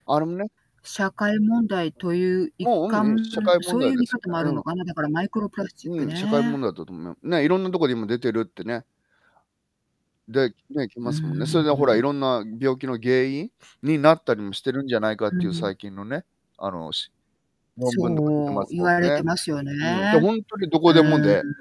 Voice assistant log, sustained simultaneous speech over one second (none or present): present